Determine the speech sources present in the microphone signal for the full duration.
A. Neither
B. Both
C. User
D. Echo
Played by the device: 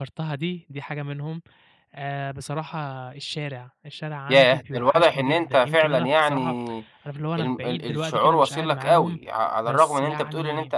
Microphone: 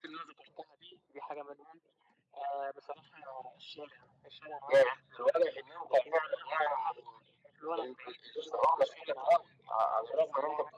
D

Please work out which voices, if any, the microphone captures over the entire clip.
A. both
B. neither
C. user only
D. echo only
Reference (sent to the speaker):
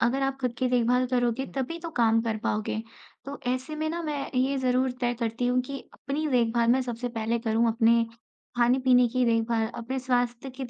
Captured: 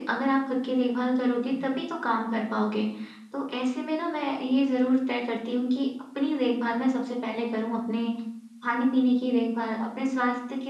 D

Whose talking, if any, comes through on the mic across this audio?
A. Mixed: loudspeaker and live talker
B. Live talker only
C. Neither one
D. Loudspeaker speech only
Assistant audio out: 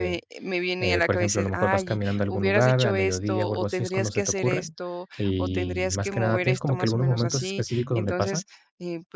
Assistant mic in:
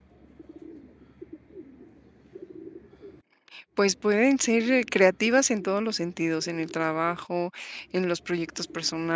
B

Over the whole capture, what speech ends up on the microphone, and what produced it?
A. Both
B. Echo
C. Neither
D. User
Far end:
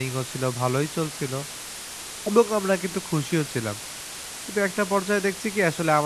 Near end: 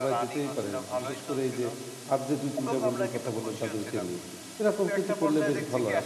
A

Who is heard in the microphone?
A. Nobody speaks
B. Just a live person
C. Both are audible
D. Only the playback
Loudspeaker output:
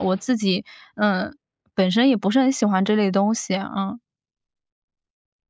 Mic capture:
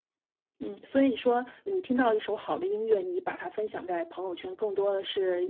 B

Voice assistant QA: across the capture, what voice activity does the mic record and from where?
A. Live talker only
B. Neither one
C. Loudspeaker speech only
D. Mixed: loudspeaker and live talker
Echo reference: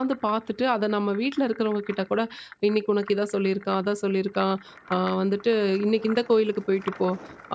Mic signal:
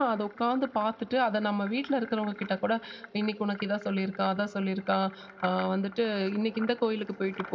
C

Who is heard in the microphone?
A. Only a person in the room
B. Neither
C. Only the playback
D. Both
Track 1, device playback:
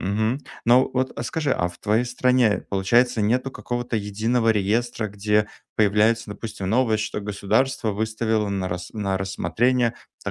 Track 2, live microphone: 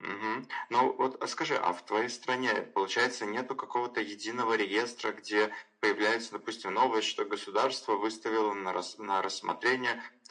C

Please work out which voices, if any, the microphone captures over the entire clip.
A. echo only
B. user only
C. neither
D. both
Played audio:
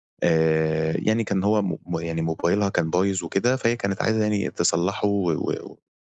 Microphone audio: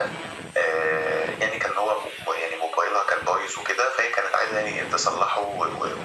A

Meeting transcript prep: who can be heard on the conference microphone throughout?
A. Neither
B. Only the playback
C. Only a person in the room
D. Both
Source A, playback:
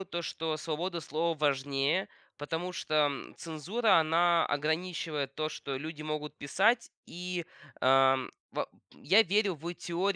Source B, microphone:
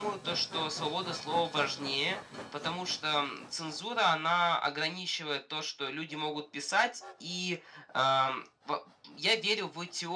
B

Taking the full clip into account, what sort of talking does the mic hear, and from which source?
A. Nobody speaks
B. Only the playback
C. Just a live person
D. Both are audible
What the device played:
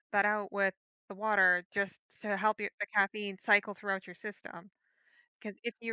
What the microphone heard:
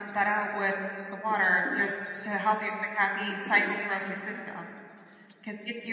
B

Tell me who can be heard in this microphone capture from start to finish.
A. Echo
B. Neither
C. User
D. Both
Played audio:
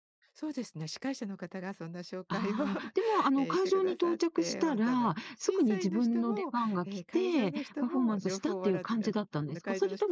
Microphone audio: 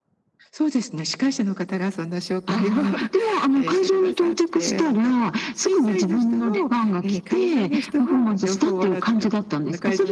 A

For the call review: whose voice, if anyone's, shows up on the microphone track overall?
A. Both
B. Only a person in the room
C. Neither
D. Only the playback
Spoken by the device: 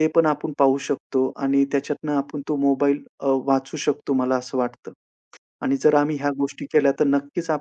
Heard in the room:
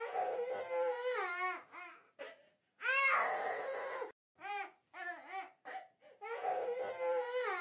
C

